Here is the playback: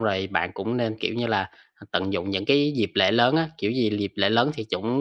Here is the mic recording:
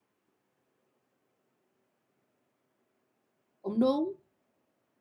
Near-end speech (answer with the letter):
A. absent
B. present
B